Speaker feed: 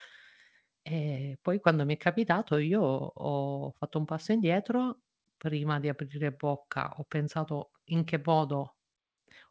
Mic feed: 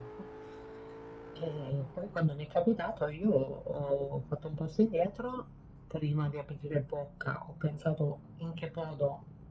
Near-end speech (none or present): none